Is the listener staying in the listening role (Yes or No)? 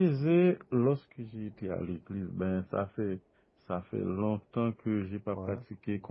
Yes